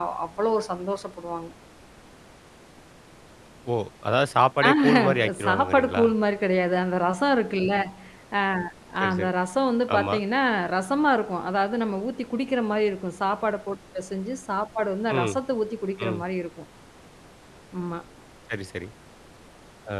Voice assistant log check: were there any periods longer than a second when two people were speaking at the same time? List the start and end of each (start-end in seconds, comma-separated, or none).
4.7-6.0